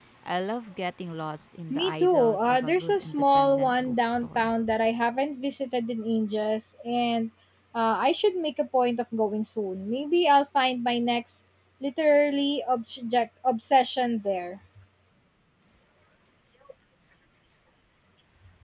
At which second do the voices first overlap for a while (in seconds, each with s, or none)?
1.7 s